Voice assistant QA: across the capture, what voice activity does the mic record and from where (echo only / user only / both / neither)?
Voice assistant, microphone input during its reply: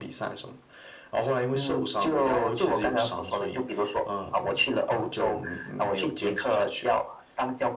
echo only